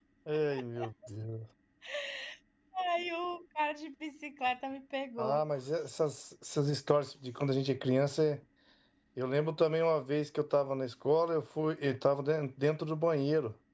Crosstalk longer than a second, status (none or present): none